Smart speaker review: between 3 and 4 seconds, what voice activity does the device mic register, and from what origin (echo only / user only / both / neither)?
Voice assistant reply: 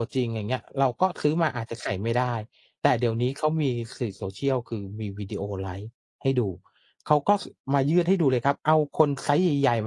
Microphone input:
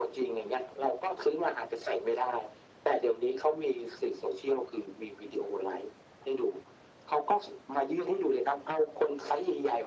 echo only